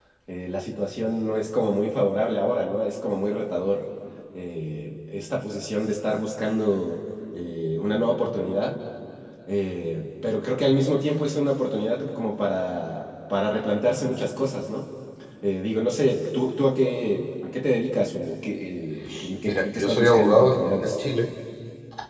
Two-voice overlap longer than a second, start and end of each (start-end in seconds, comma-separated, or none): 19.5-20.9